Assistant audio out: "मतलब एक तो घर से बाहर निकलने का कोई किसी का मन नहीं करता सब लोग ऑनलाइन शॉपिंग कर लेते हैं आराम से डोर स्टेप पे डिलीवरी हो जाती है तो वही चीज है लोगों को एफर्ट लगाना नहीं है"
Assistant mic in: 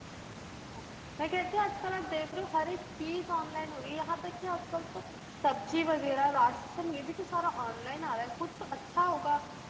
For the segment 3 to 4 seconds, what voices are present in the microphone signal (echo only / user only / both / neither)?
user only